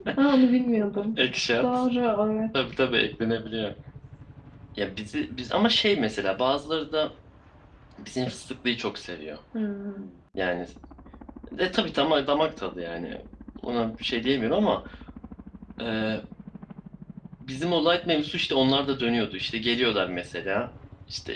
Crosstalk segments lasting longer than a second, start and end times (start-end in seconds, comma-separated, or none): none